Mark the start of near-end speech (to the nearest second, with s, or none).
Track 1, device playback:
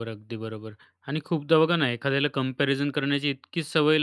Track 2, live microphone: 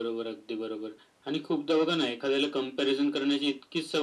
none